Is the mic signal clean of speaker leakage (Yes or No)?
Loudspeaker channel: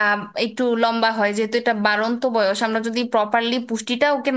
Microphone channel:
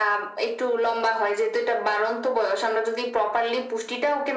No